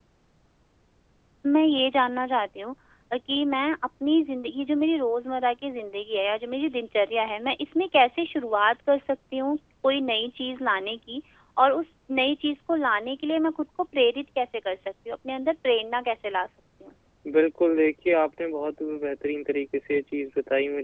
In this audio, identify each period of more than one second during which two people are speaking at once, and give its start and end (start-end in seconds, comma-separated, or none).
none